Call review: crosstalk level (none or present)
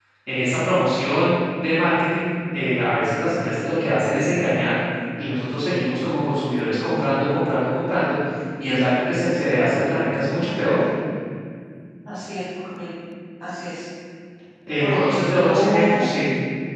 present